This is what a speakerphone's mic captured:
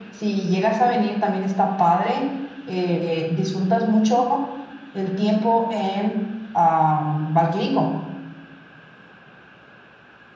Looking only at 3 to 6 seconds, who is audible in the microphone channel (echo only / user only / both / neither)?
echo only